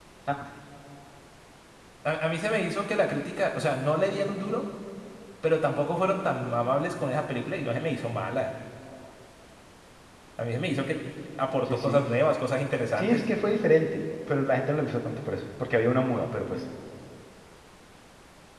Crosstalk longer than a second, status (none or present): none